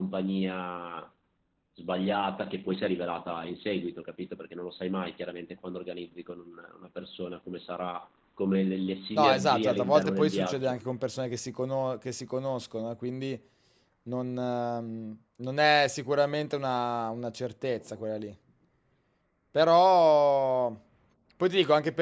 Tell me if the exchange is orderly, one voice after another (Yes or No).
No